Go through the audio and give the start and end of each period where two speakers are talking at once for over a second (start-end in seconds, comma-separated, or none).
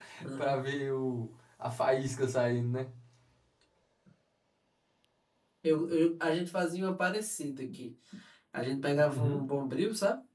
none